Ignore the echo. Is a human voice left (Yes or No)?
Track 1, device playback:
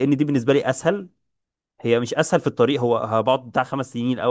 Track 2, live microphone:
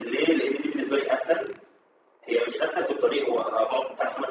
No